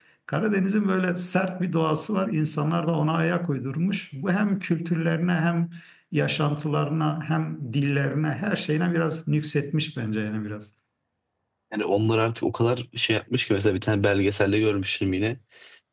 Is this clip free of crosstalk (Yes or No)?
Yes